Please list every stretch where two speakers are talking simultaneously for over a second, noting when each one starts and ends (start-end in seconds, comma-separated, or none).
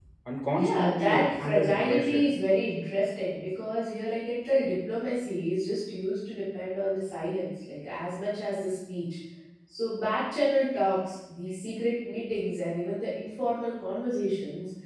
0.5-2.3